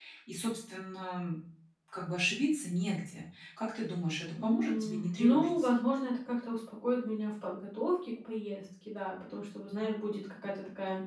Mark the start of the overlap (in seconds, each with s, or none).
4.4 s